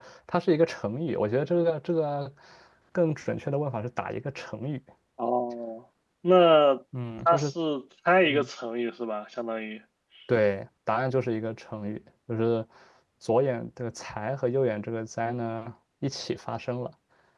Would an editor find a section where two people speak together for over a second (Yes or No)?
No